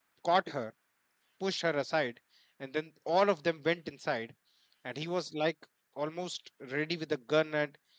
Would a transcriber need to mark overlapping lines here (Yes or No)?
No